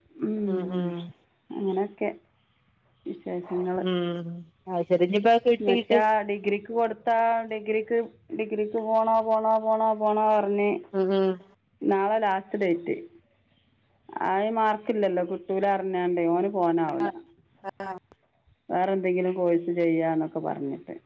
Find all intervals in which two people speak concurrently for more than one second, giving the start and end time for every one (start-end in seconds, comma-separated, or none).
none